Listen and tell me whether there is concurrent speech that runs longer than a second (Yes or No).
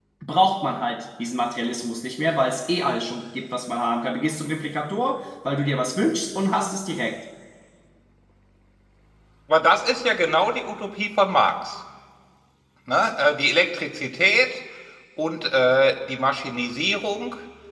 No